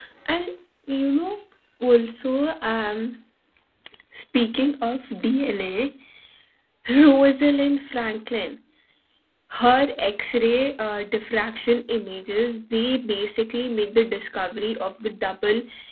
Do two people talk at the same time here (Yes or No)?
No